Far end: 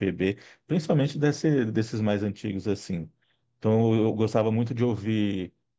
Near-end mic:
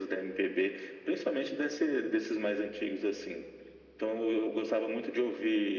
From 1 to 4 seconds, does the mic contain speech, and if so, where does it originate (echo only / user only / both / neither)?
echo only